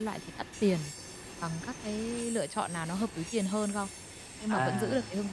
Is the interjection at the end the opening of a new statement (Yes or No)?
No